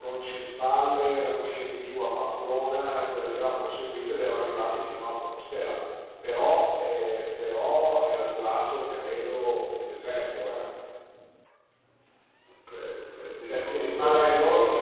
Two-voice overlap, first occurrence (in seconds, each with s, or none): 13.5 s